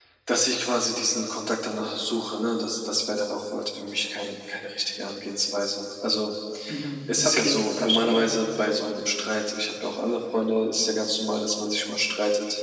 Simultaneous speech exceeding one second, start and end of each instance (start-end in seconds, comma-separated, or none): 7.1-8.3